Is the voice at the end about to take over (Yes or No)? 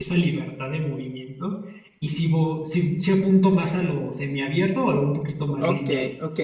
Yes